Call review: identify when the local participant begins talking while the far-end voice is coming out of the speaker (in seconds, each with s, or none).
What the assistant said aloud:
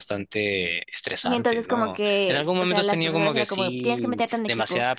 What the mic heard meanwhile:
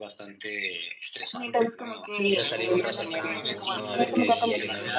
2.2 s